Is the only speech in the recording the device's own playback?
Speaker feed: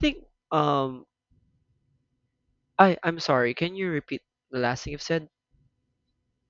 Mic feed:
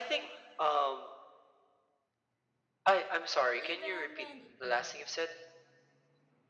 No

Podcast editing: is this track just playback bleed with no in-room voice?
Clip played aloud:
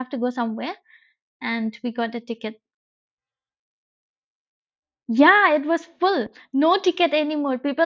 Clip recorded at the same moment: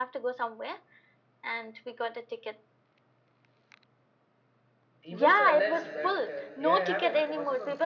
No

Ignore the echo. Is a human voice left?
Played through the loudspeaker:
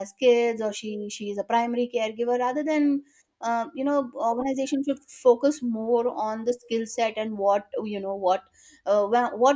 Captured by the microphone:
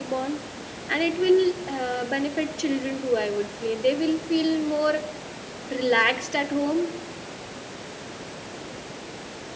Yes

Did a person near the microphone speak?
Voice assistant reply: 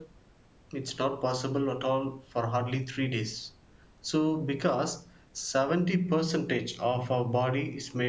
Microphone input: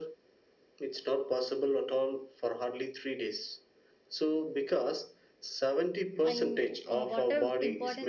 Yes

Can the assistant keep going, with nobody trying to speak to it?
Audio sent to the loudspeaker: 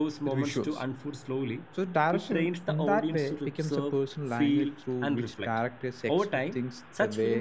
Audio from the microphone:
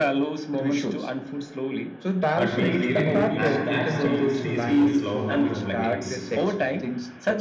No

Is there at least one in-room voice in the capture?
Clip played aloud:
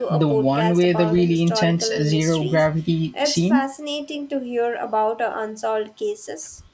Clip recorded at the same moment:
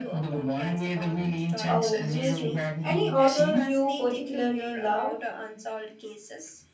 Yes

